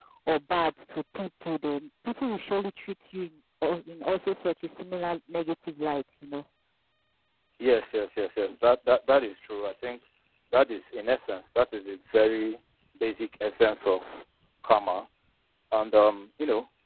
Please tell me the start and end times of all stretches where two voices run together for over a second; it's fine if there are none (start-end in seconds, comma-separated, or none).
none